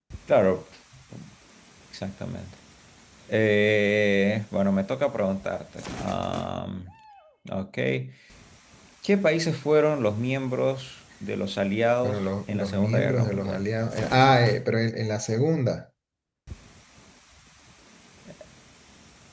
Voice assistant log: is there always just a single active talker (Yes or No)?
No